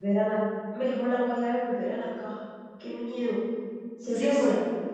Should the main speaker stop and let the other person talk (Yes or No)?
Yes